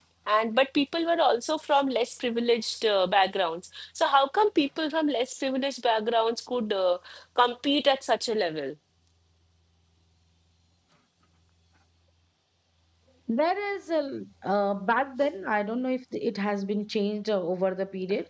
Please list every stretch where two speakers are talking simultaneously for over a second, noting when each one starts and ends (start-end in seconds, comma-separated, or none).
none